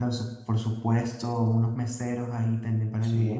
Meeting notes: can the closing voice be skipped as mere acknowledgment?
Yes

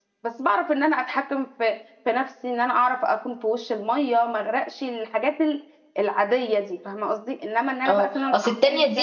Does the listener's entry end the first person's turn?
Yes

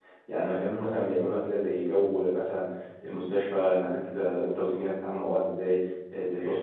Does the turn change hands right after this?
No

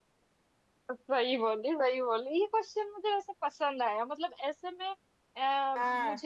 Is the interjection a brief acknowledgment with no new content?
Yes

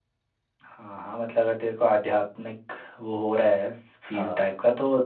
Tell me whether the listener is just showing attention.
Yes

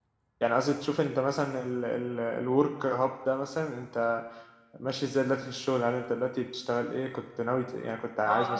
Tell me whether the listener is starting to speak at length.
Yes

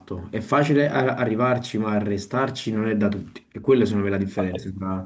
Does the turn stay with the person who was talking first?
No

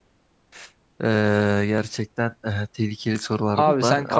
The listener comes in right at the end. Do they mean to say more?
Yes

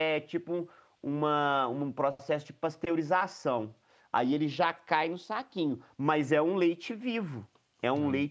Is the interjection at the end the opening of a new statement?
No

